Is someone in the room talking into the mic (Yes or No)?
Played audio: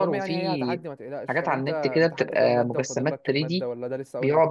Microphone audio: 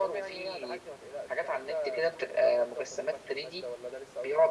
No